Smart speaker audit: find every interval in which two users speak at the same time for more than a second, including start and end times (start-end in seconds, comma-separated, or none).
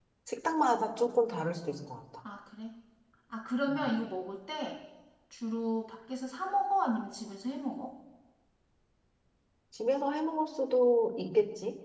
none